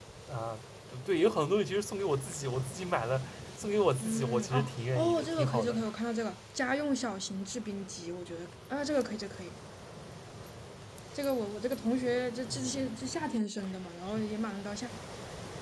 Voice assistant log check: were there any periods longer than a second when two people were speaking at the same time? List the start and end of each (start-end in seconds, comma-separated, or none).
4.0-5.9